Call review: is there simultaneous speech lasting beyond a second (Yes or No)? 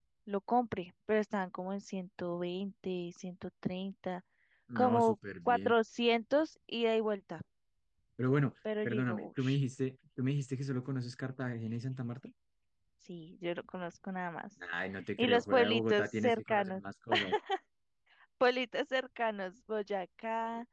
Yes